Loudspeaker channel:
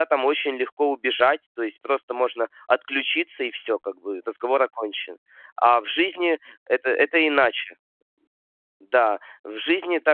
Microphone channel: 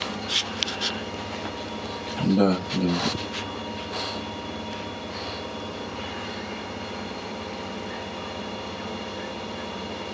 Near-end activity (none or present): present